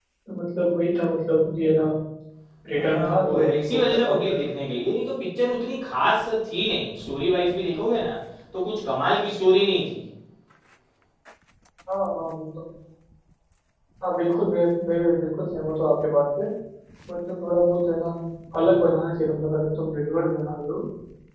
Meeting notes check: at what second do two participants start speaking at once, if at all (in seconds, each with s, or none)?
2.7 s